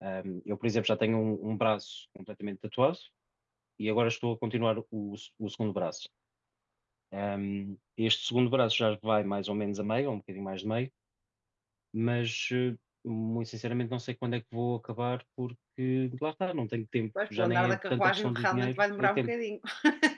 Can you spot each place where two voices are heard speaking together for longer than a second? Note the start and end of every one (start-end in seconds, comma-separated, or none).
17.4-19.3